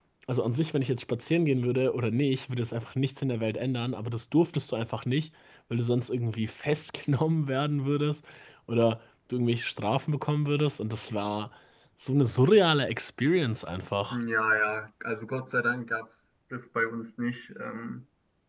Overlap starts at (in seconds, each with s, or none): none